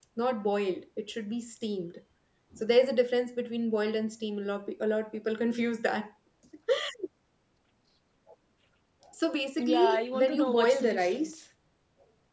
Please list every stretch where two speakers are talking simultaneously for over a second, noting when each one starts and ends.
9.6-11.3

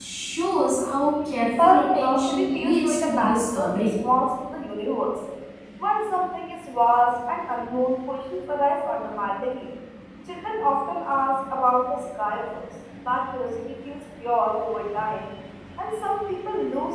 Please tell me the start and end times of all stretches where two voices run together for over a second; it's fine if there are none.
1.5-3.9

